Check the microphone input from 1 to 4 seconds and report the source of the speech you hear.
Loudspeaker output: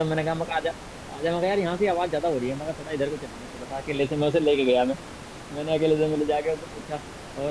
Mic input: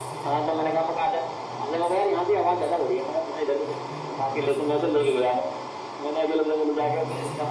both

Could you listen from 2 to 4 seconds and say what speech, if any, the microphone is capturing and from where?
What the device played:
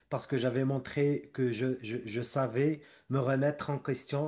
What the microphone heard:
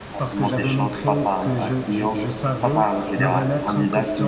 both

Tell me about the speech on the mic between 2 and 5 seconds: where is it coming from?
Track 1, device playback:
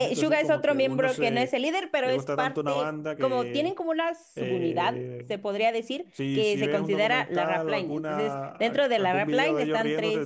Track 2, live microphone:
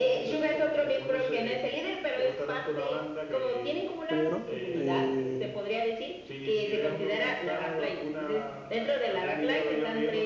both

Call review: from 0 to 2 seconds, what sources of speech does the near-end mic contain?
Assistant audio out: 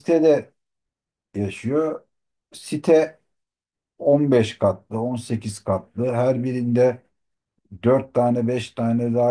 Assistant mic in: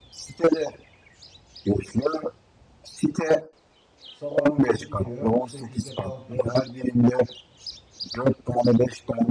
echo only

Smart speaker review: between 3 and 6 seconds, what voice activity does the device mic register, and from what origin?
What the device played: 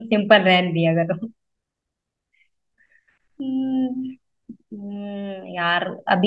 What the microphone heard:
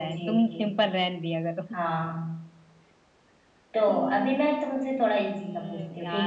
both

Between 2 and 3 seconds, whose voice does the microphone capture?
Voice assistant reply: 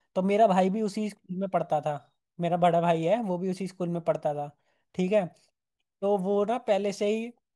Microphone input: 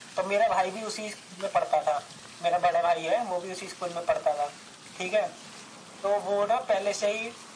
echo only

